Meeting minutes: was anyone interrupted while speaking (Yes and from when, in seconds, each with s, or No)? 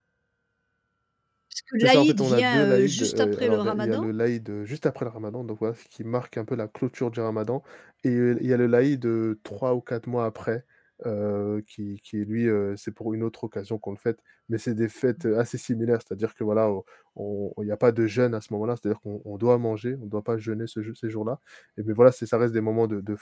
Yes, from 1.8 s